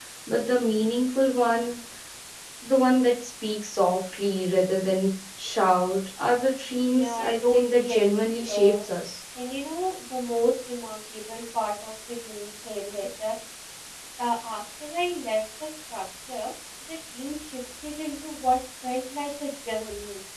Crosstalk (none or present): present